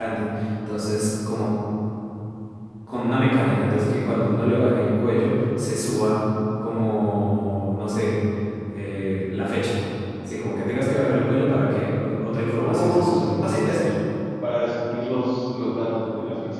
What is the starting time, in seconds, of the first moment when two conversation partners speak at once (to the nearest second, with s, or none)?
13 s